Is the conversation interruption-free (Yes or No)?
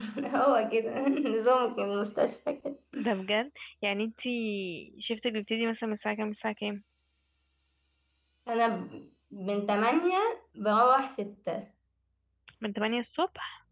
Yes